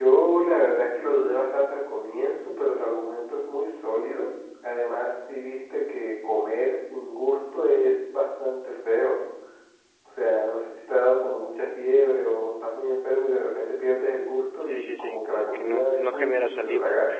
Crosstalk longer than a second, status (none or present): present